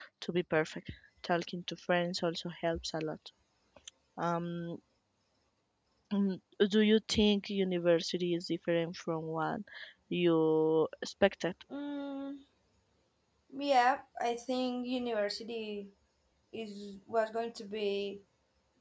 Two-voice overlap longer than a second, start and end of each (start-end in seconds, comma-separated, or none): none